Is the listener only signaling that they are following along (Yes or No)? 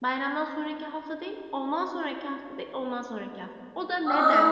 No